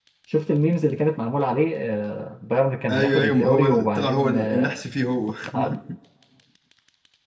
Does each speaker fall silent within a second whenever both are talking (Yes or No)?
No